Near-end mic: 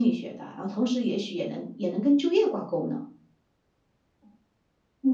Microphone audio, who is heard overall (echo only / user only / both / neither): echo only